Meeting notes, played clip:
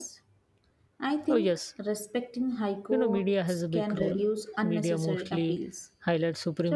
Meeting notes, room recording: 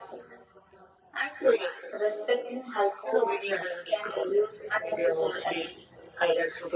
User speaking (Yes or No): No